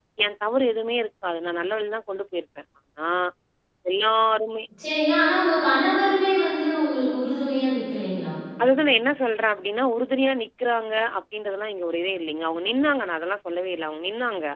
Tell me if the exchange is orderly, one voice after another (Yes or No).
Yes